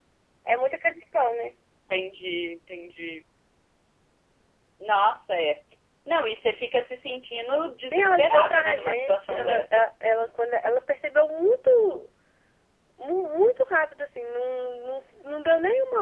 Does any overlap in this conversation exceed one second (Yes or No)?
Yes